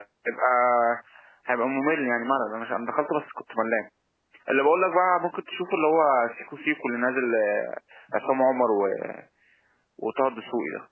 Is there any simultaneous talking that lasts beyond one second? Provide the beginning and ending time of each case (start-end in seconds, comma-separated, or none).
none